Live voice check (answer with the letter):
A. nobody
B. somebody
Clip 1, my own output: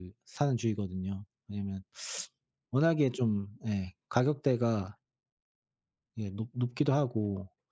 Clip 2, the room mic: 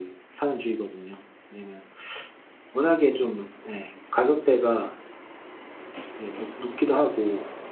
A